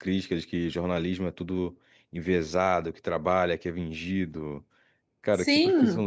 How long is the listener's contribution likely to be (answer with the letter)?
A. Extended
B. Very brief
A